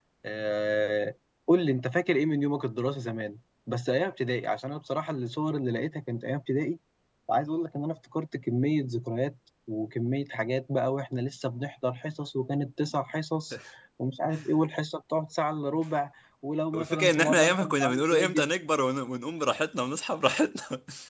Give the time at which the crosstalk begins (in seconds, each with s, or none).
16.7 s